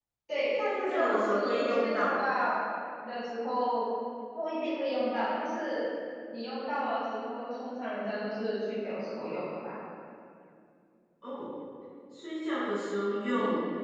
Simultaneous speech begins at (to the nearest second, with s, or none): 1 s